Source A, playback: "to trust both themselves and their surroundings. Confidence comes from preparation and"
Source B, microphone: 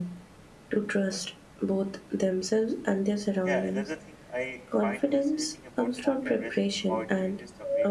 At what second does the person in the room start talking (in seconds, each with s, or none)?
3.4 s